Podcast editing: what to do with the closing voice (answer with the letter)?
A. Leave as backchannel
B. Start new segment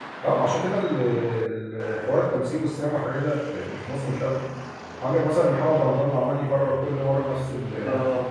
A